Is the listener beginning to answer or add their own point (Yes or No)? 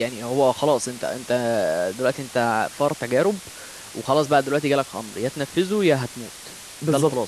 Yes